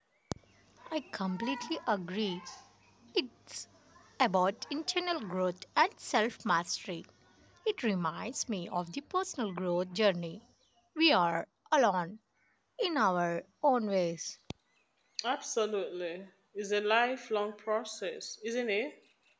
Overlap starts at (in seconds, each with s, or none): none